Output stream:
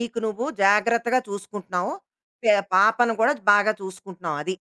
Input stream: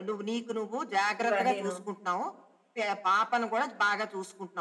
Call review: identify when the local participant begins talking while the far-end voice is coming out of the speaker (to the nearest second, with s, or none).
1 s